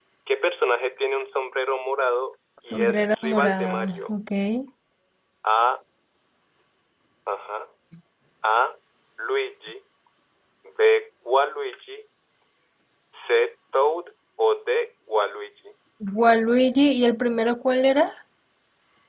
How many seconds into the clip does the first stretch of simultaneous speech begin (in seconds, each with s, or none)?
2.7 s